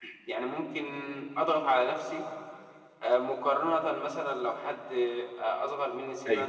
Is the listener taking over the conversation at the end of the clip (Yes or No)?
No